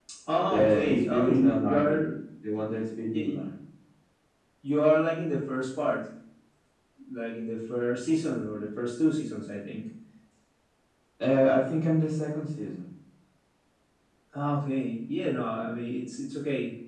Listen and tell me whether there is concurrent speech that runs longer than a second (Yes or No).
Yes